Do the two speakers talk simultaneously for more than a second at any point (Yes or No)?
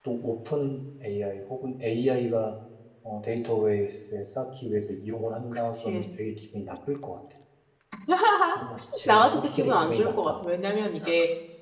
Yes